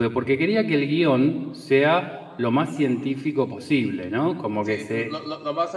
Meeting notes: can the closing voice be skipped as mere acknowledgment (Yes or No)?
No